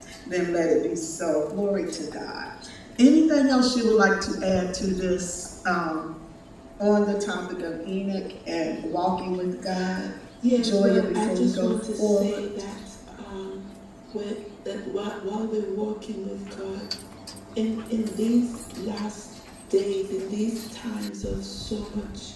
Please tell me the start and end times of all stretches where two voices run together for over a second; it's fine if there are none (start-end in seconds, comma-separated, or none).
10.6-12.4